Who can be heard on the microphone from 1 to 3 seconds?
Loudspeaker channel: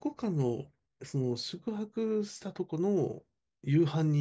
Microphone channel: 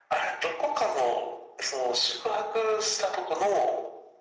echo only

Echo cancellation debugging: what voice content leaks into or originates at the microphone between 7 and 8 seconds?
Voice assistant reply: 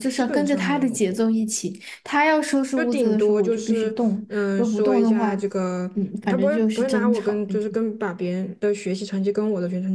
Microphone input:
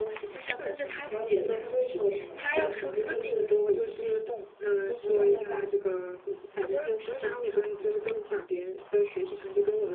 echo only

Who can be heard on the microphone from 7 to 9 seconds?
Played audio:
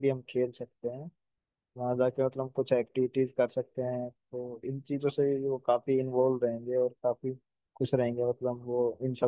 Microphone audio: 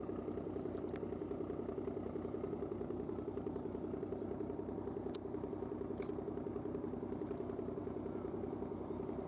neither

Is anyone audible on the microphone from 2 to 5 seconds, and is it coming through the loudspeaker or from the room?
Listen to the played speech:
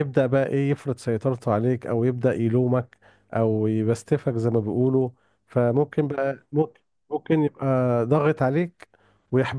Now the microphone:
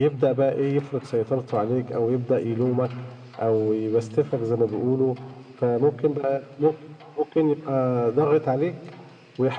echo only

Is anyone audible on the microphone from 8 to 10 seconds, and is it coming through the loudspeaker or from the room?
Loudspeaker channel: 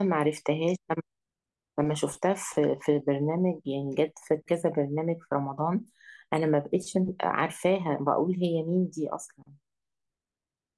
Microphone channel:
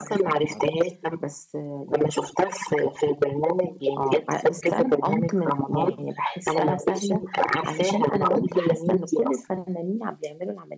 both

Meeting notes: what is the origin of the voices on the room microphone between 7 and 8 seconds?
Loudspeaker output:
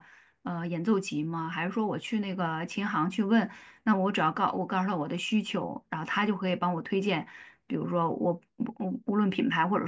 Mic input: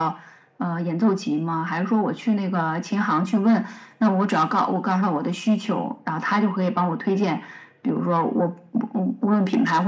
echo only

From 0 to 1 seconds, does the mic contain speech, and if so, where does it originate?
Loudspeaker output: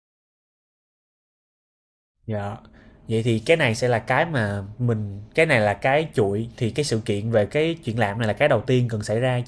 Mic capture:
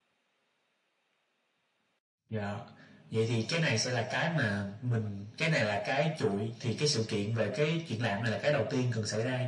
neither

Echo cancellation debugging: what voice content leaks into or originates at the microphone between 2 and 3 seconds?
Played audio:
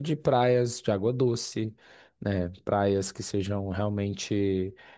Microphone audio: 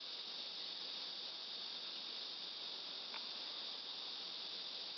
neither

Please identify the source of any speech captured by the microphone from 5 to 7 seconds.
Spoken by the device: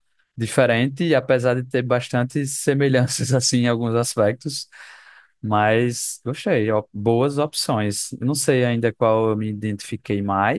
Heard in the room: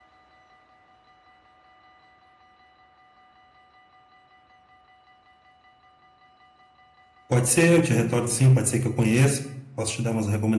neither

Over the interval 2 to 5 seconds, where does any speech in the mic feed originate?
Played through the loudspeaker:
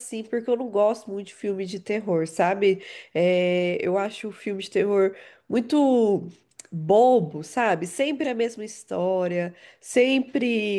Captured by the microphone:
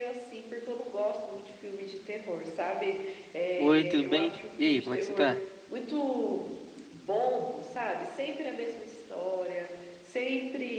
both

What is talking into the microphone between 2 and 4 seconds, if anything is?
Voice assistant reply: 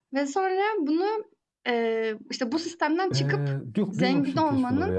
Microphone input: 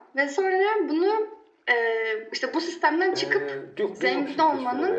echo only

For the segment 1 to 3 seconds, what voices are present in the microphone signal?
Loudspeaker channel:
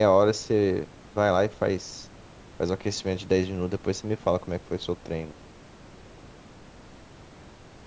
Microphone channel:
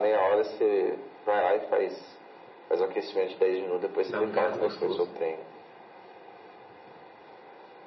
echo only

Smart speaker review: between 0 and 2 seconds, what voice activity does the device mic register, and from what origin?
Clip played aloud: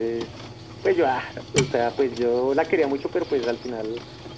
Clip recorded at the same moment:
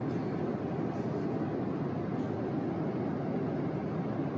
neither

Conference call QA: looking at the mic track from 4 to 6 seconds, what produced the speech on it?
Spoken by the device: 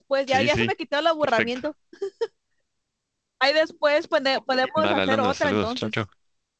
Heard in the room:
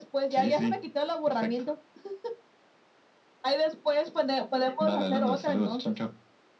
echo only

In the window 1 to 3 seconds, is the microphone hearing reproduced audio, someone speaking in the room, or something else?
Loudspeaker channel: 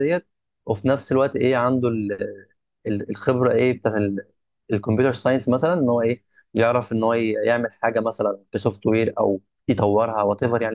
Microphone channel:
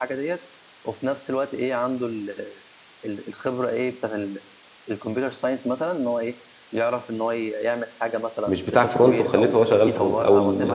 echo only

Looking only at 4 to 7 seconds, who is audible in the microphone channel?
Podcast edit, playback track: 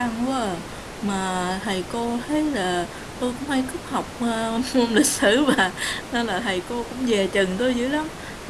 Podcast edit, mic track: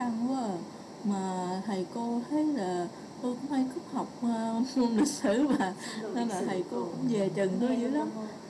both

